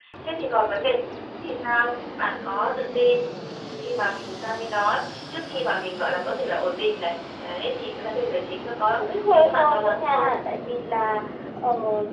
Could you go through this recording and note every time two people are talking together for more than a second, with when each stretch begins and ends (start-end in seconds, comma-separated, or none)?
9.0-10.3